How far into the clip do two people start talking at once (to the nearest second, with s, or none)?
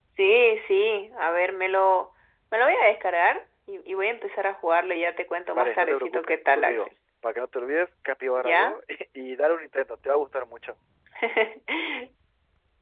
6 s